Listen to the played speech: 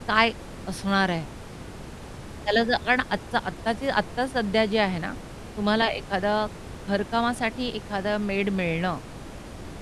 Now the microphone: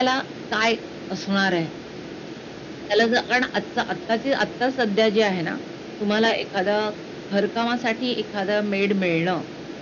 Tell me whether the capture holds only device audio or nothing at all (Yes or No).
Yes